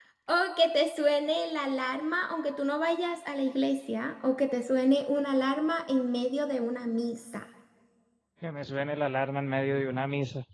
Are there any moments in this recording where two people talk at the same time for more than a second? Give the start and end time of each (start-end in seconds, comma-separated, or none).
none